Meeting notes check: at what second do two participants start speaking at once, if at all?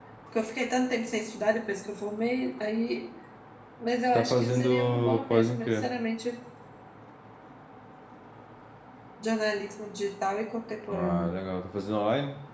4.1 s

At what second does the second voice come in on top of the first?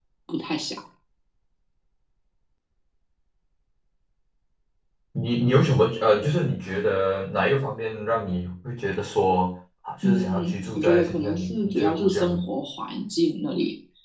10.0 s

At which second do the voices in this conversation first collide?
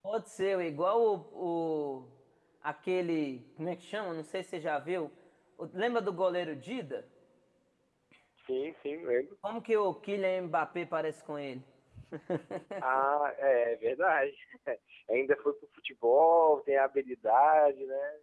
none

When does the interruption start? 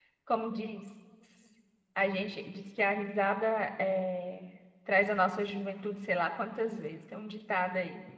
none

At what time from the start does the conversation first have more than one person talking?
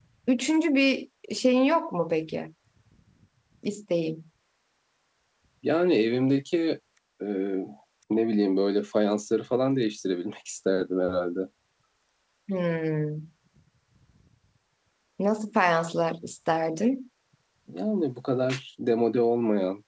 none

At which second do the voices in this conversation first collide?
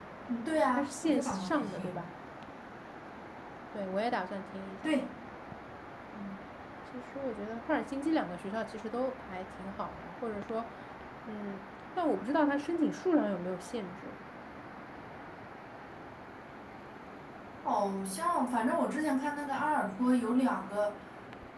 0.7 s

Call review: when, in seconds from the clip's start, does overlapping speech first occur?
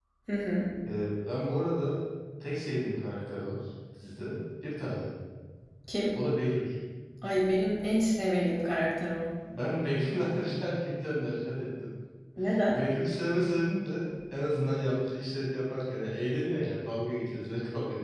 none

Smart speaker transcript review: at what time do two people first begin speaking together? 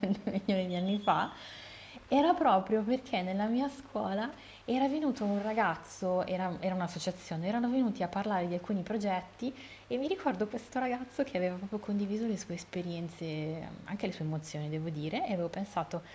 none

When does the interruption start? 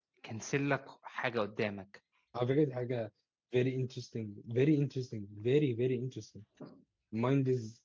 none

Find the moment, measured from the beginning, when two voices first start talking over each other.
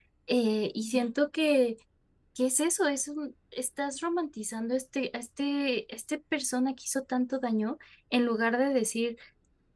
none

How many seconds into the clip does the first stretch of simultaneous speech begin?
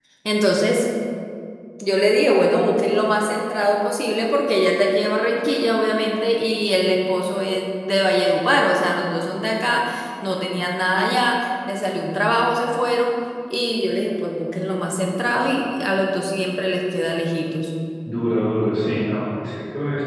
none

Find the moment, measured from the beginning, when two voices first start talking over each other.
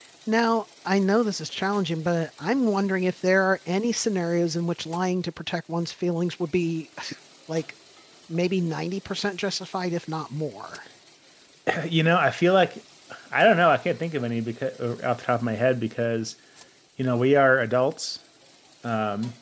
none

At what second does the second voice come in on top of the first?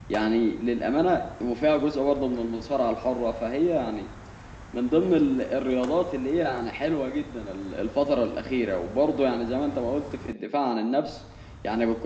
none

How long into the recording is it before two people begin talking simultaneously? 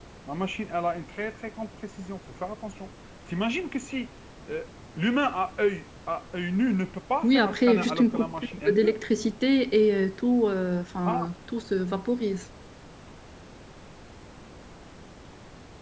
7.2 s

